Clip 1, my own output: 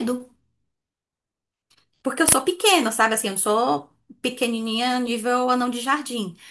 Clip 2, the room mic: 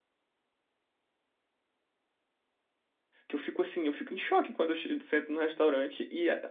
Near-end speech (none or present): present